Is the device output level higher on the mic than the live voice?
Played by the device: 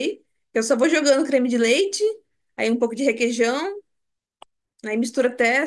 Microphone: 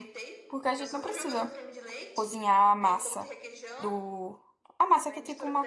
No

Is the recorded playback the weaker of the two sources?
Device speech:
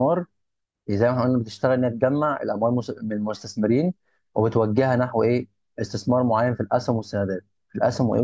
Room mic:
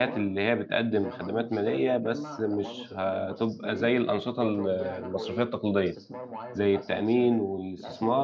Yes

